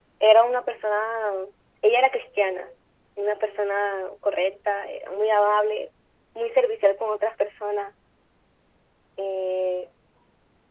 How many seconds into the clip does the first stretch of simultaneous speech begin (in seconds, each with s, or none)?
none